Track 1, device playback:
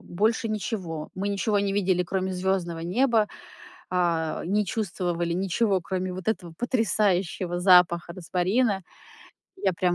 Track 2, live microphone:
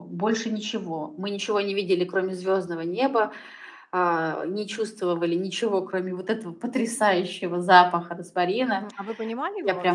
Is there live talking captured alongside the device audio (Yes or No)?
Yes